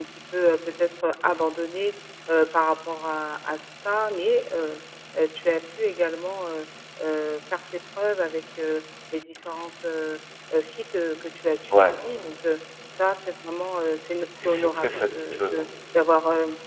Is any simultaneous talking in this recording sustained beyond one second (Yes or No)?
Yes